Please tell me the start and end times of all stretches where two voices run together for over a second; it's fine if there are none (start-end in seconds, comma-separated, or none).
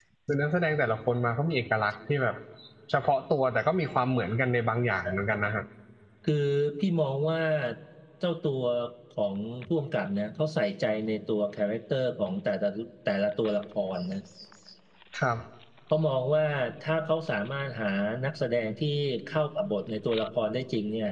none